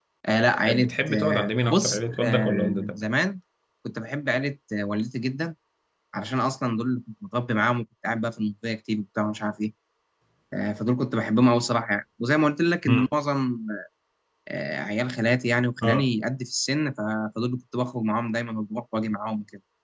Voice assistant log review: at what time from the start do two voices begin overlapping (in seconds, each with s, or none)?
0.7 s